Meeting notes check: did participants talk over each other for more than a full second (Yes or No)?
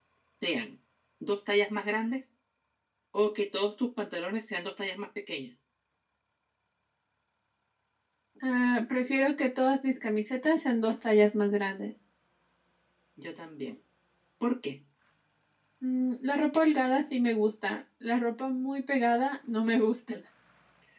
No